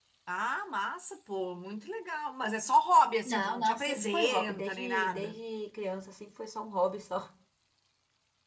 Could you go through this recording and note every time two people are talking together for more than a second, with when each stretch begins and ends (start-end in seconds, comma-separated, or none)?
3.2-5.4